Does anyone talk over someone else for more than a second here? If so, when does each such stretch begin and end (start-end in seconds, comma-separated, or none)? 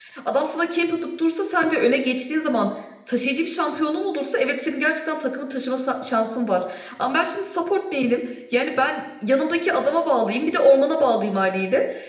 none